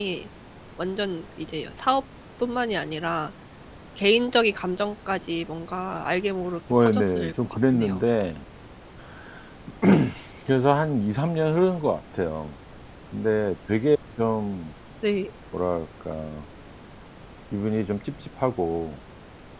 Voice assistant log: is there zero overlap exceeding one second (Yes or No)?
No